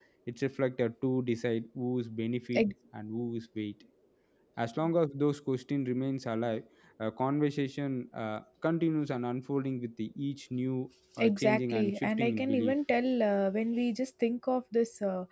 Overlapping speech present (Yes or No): Yes